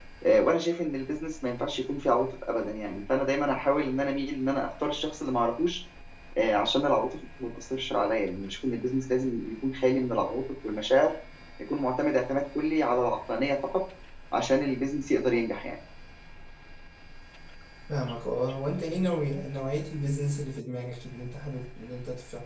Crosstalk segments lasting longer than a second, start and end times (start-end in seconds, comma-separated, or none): none